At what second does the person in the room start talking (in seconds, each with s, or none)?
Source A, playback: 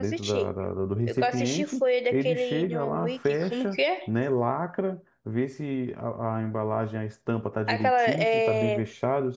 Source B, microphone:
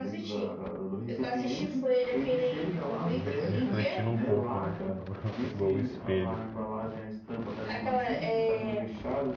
3.1 s